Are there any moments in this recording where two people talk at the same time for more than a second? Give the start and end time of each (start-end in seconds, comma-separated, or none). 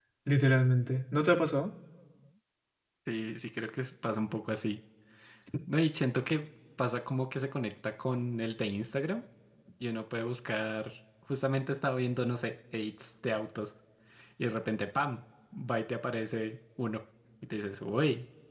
none